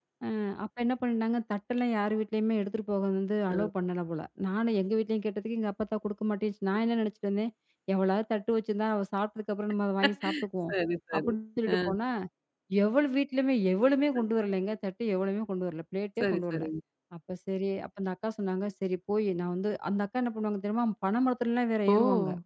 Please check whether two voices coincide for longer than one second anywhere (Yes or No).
No